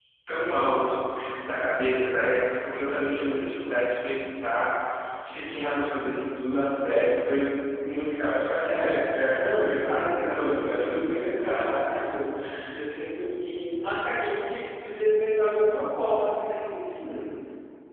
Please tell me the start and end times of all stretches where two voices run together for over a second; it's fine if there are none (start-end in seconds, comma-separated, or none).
9.2-11.7